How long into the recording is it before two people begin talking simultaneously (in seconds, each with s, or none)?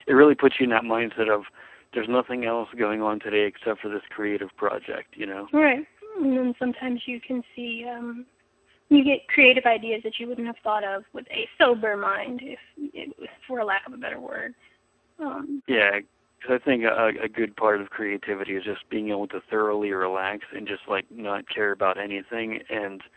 none